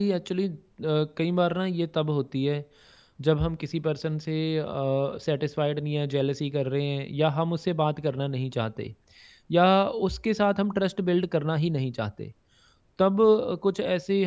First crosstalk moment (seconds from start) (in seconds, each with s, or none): none